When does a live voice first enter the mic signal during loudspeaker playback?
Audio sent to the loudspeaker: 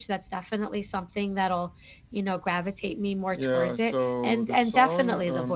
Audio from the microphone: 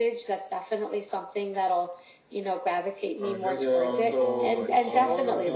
3.2 s

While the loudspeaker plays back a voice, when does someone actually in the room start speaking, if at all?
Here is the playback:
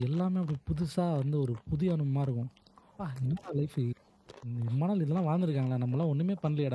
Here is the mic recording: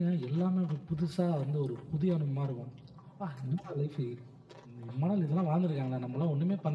none

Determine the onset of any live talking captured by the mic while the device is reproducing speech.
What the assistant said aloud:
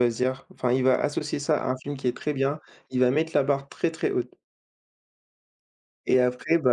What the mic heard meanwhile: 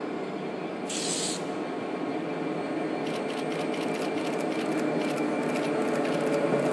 none

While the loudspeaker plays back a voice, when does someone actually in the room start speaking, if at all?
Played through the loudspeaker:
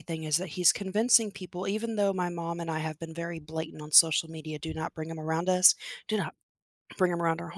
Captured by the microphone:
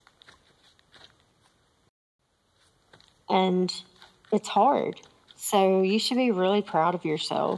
3.3 s

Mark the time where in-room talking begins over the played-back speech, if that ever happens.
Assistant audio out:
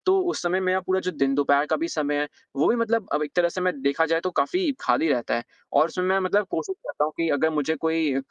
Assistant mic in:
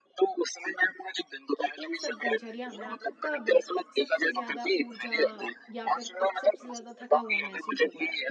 1.6 s

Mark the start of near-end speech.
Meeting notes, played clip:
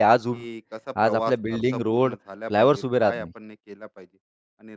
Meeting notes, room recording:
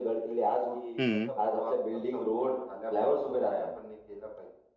1.0 s

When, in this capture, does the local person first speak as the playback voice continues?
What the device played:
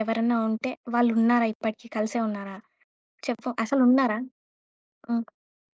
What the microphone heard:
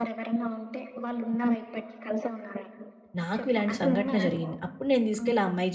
3.2 s

